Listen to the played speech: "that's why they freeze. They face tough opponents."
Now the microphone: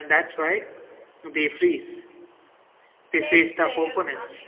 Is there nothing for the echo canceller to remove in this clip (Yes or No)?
No